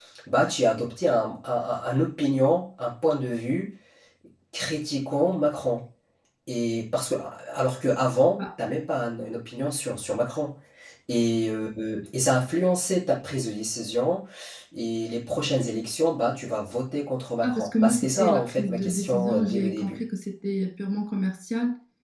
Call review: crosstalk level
present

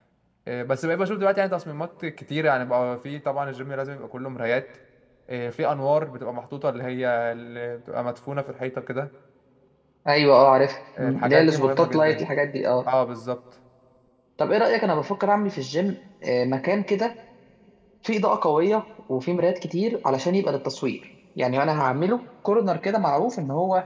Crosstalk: present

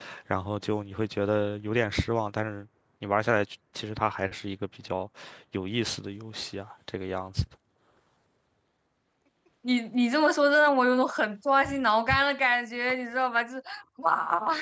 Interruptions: none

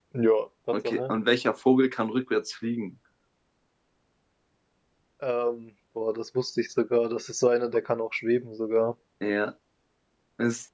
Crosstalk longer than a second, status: none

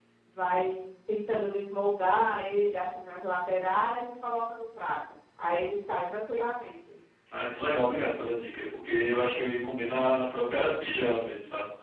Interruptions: none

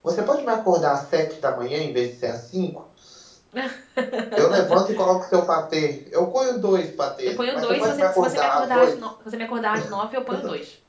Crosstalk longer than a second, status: present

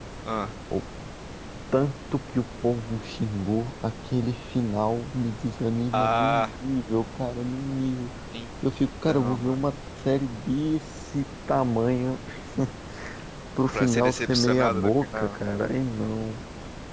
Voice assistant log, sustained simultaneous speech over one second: present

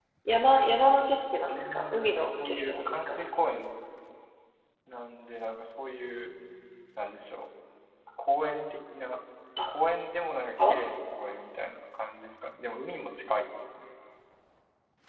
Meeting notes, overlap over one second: present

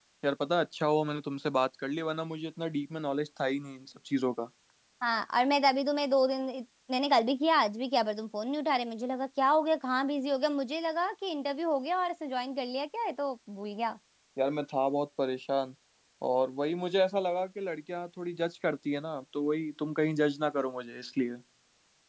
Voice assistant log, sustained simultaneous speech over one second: none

